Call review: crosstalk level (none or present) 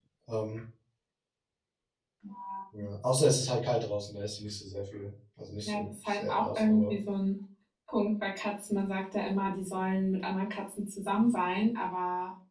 present